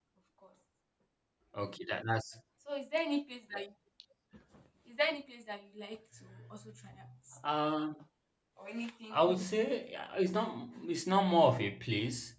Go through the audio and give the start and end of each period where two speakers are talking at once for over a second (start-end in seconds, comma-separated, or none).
none